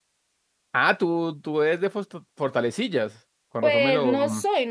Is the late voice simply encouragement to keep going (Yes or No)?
No